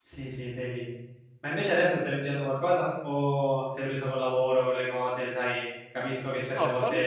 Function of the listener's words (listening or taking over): taking over